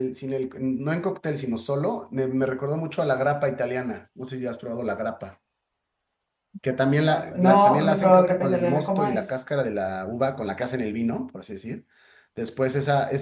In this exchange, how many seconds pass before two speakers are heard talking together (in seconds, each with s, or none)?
7.0 s